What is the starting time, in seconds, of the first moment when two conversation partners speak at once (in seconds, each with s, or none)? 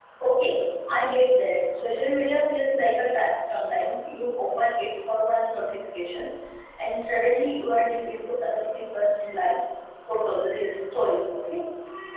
none